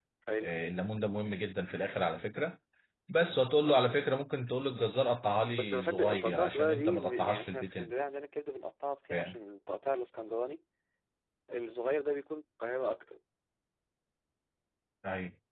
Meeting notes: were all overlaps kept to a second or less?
No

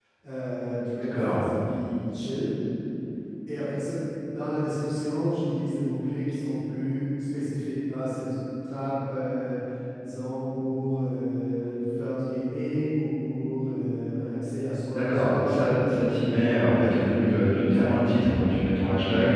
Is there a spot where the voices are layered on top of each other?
Yes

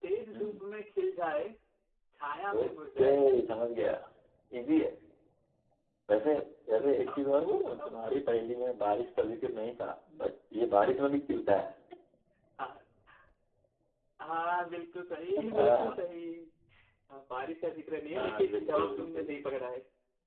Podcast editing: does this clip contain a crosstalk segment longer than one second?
Yes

